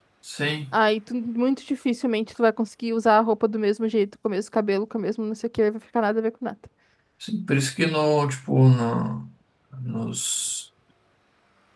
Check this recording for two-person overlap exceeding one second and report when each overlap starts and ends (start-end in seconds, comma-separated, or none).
none